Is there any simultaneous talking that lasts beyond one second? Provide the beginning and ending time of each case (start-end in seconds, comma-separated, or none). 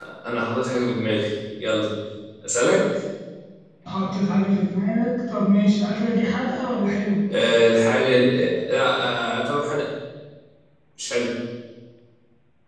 none